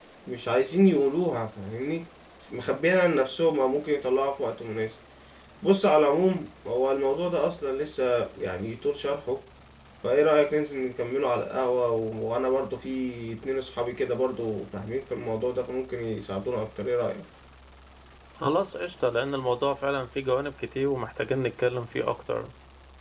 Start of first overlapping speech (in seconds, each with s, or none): none